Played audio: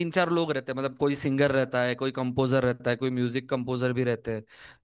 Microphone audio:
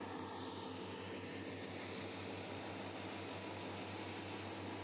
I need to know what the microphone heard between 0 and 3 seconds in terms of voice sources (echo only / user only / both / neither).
neither